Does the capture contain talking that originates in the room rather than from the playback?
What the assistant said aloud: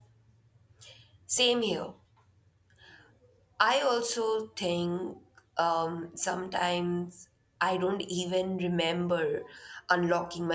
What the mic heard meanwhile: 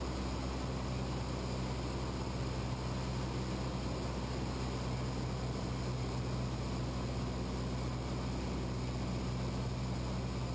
No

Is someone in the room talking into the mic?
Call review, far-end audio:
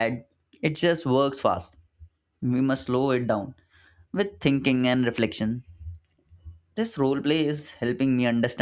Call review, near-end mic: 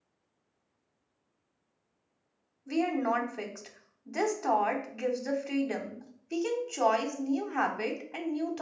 Yes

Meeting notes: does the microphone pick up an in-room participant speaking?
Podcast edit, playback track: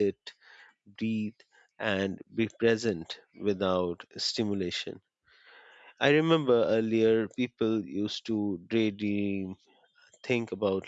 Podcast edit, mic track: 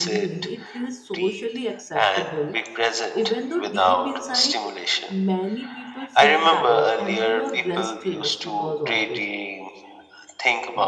Yes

